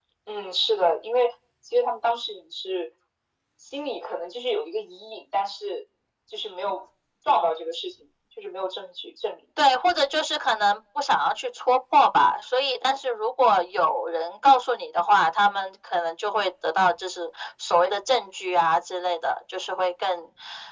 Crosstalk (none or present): none